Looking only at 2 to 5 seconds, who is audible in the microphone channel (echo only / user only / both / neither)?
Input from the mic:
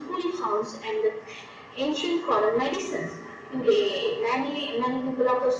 echo only